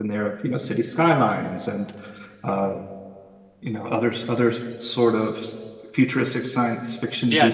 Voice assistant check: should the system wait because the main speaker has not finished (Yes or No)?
No